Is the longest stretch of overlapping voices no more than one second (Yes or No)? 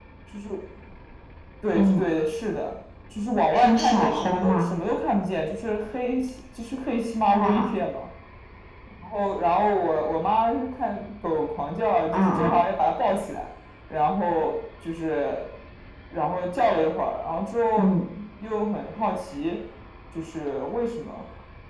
No